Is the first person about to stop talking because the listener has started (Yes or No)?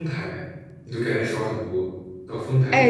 Yes